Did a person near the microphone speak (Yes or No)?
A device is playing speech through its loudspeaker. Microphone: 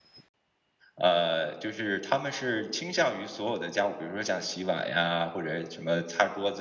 Yes